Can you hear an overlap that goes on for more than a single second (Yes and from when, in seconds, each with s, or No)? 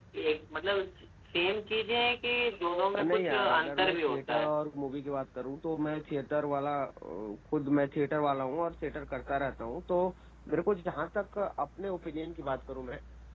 Yes, from 2.9 s